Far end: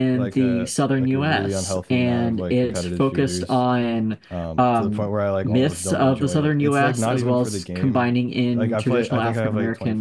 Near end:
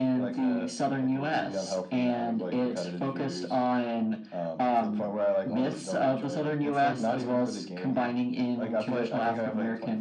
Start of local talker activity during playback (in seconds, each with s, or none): none